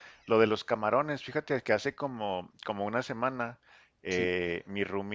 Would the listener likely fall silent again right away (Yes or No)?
Yes